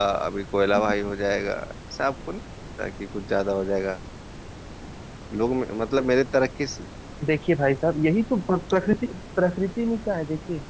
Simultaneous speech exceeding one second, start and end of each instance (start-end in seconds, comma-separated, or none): none